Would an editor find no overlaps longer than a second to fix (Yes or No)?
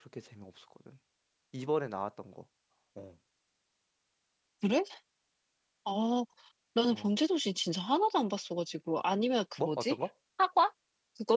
Yes